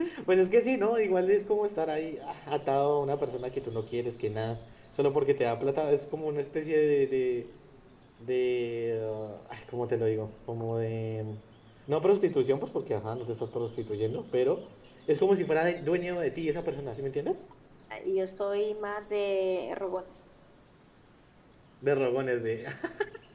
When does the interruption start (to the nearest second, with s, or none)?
none